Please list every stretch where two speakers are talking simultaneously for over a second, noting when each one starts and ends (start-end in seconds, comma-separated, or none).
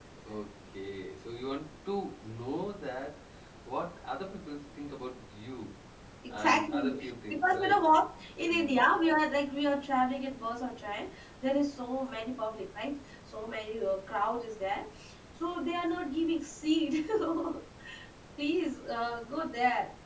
6.4-7.8